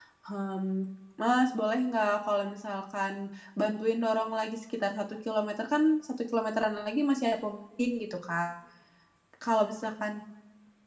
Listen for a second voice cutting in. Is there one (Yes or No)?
No